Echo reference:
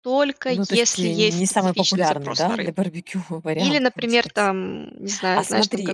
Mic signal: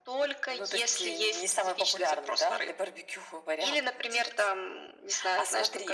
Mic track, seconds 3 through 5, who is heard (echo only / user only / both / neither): echo only